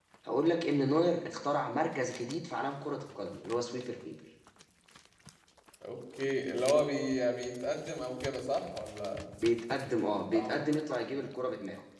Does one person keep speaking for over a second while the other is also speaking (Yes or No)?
No